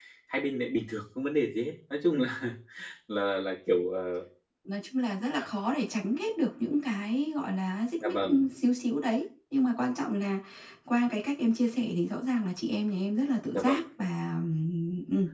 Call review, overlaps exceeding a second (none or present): none